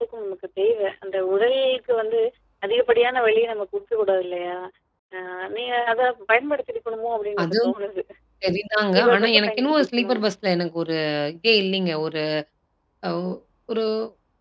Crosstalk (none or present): present